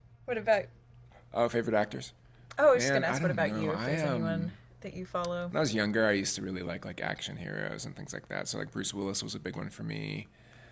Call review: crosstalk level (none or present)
present